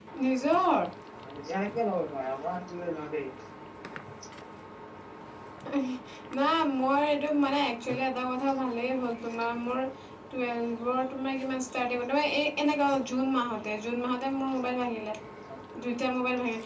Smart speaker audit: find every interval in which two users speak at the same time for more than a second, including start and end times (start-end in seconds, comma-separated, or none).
none